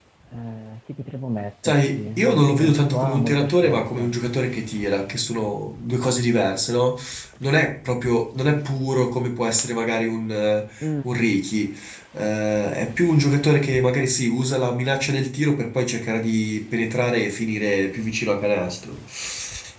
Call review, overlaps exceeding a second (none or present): present